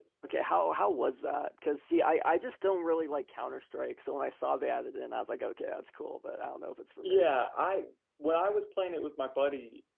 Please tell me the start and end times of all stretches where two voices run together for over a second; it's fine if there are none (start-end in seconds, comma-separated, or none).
none